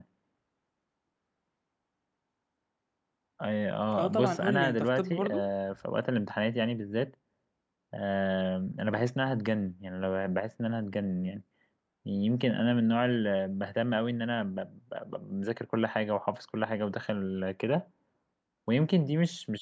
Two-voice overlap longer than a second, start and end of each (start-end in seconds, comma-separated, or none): 4.0-5.5